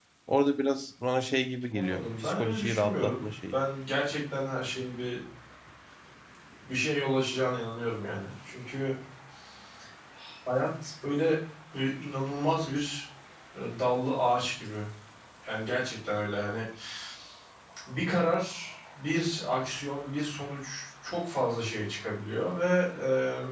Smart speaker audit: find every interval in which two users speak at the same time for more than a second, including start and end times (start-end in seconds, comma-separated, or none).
1.7-3.5